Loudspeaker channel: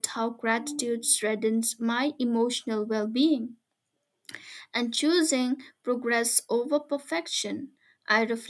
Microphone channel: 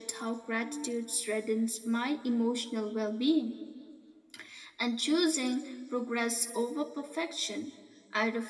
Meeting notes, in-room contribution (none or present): none